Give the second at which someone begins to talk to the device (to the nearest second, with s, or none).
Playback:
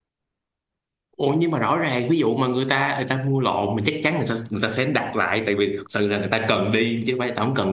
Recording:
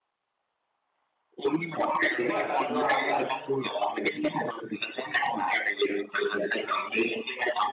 2 s